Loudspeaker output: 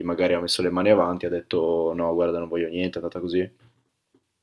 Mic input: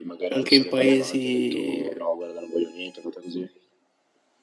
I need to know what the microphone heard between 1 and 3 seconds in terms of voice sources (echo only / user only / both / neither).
both